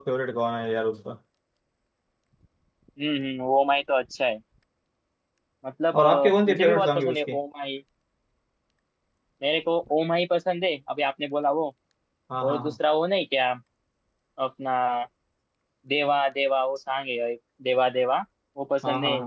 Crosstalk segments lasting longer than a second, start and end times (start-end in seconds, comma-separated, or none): 5.9-7.4